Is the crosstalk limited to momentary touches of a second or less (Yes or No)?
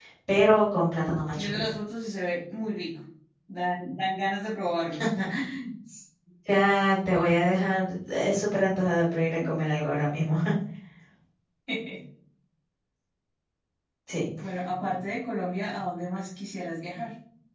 Yes